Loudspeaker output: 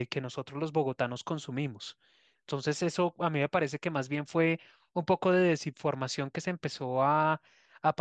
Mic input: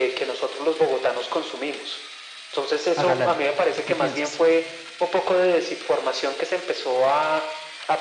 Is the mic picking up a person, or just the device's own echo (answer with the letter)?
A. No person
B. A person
B